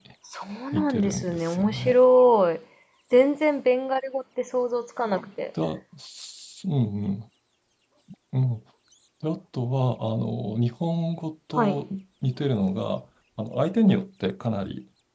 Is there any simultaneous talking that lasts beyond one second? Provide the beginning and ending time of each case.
0.7-2.0

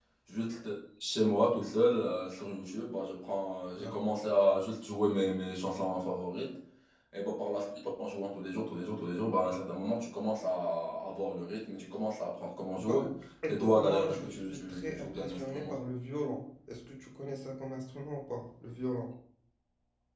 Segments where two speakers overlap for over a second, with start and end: 13.5-15.7

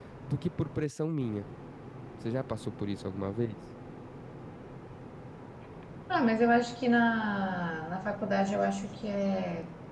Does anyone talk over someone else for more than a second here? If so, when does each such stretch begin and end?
none

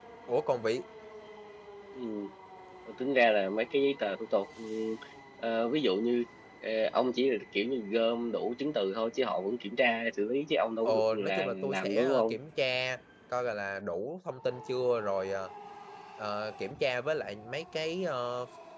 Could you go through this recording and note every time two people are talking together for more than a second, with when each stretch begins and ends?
10.8-12.3

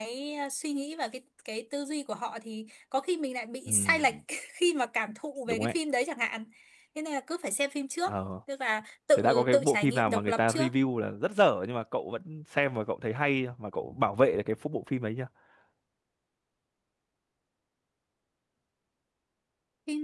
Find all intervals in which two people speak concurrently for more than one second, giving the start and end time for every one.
9.2-10.7

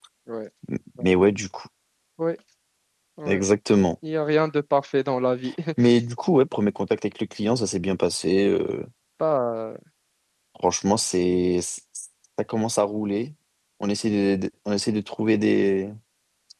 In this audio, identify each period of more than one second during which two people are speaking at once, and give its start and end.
none

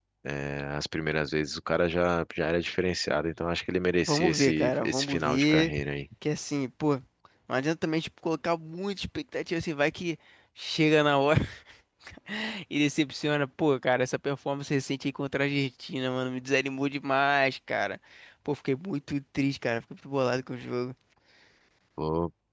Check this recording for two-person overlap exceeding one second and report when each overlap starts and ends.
4.1-5.7

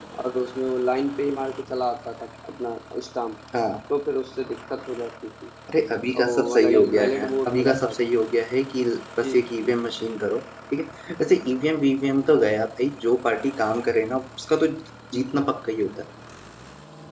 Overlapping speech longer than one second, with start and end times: 6.1-8.1

